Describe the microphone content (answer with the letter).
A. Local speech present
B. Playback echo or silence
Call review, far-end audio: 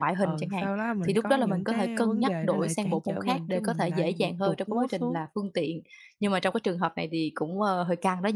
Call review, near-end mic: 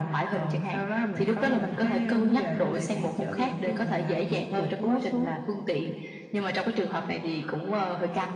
B